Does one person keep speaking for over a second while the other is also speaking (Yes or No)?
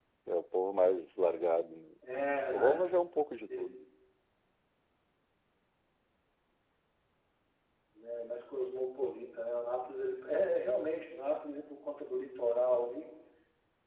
No